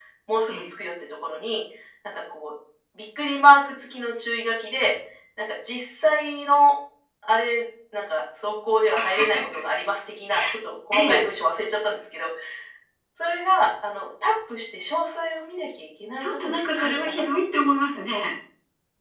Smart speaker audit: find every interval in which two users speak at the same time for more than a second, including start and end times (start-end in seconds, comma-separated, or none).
16.2-17.7